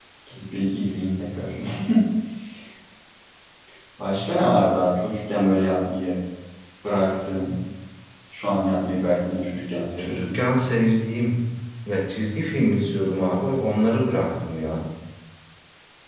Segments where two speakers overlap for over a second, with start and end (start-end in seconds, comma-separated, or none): none